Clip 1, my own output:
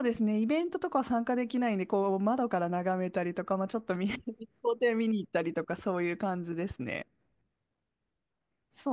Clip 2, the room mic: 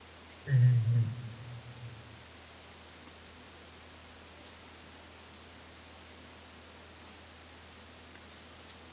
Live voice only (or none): うん。うん。